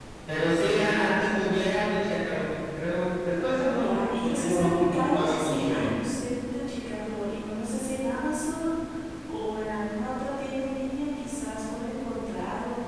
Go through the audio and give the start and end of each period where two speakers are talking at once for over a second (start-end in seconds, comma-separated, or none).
3.8-6.0